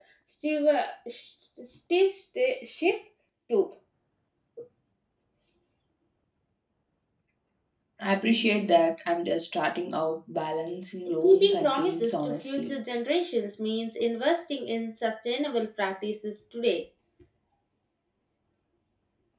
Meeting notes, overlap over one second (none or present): present